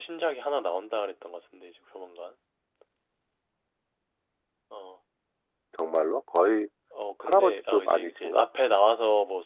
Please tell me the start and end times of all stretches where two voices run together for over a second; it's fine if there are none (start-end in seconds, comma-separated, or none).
7.3-8.5